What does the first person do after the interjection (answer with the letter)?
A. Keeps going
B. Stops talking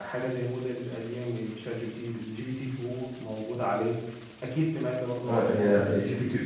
B